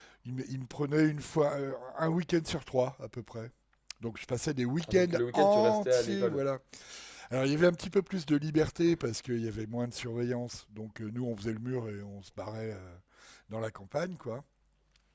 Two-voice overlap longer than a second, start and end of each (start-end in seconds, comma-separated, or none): 4.9-6.4